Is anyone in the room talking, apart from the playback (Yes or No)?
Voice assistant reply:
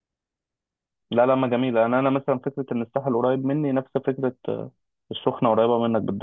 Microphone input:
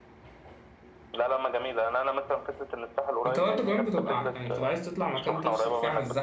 Yes